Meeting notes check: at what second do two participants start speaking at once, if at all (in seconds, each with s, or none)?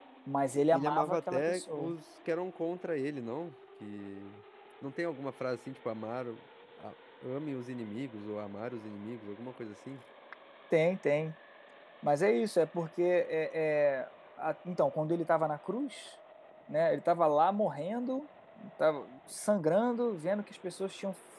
0.7 s